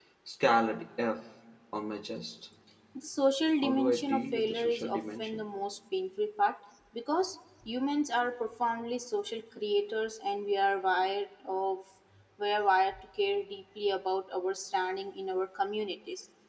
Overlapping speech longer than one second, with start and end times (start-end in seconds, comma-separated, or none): 3.6-5.4